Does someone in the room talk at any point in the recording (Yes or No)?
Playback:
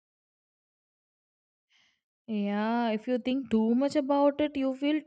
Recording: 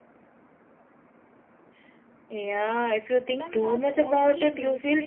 Yes